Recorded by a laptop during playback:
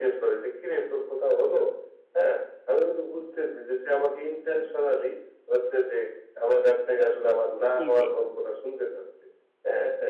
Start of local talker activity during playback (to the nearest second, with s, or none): 8 s